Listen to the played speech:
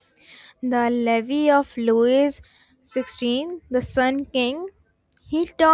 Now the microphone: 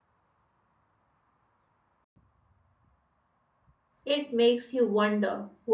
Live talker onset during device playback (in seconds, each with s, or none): 4.0 s